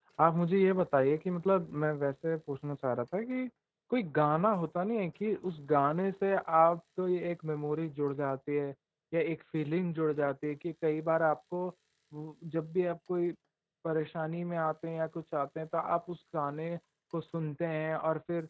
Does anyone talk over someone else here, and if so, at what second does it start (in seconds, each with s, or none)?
none